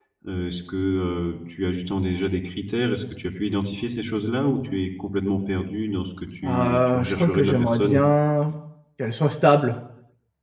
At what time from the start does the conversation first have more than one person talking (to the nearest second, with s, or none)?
6 s